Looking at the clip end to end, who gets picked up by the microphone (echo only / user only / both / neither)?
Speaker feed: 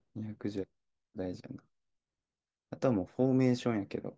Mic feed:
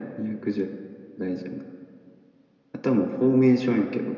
echo only